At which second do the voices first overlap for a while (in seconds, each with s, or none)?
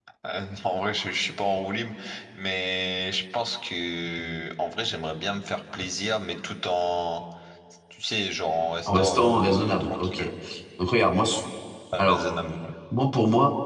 8.9 s